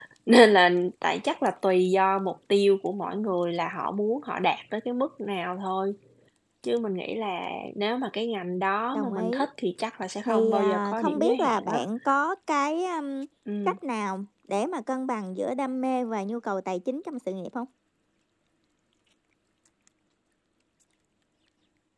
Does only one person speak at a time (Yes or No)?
No